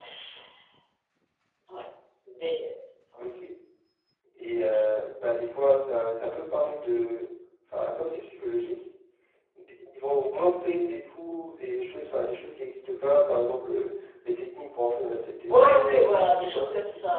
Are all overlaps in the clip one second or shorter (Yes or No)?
No